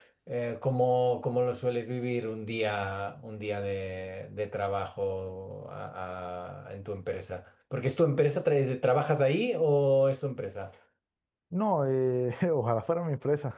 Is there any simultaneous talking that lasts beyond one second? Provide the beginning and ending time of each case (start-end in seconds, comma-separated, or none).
none